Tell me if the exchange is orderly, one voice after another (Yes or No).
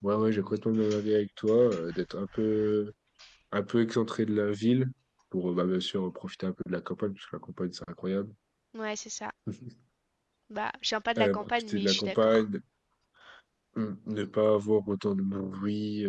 No